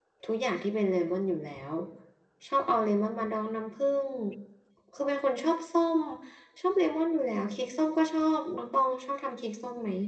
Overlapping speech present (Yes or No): No